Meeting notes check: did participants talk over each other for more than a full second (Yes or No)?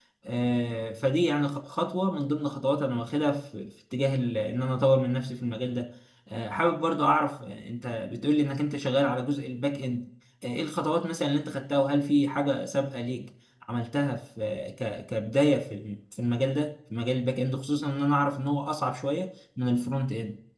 No